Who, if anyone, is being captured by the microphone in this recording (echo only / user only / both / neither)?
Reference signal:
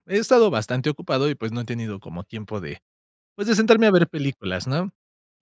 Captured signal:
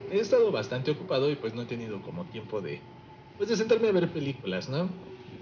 echo only